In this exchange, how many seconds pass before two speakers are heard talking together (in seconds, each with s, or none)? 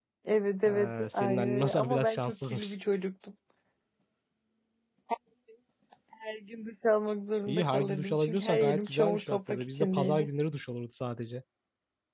0.7 s